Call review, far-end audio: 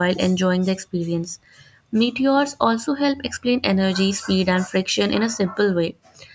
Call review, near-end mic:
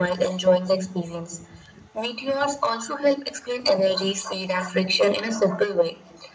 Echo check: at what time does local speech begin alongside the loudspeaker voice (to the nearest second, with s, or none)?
none